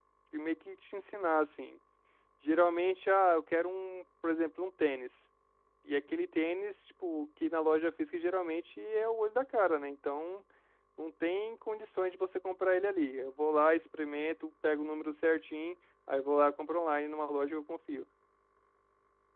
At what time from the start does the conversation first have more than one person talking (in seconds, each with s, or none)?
none